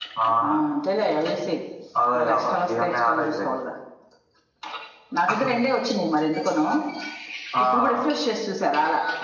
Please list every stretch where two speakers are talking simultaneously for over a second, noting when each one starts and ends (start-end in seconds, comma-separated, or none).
2.1-3.5